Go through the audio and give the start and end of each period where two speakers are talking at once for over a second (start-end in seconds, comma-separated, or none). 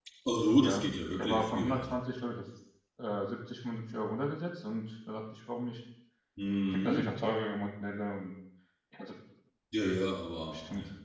0.6-2.0